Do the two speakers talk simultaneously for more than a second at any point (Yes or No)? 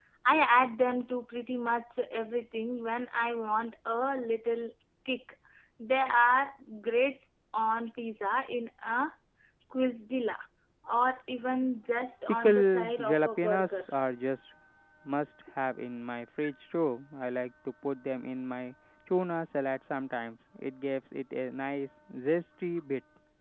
Yes